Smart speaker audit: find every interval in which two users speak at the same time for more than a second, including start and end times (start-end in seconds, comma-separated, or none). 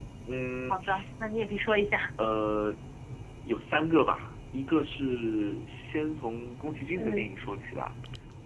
none